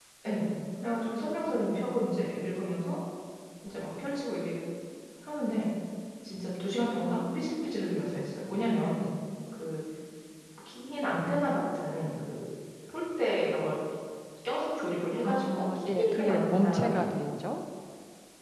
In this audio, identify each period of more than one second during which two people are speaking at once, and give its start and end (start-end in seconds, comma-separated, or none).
15.2-17.0